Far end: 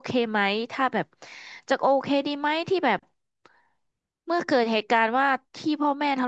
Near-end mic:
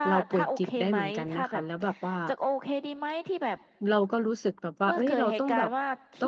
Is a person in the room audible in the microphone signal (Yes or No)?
Yes